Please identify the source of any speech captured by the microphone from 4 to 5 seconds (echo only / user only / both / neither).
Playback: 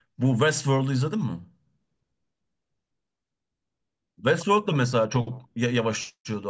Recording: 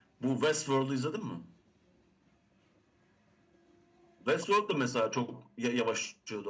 echo only